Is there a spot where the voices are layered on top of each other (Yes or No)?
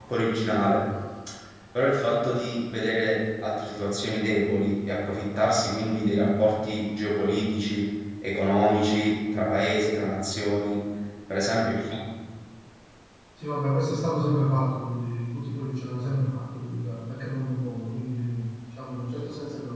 No